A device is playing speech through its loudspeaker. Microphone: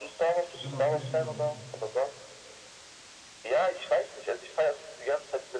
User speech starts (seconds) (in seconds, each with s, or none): 0.5 s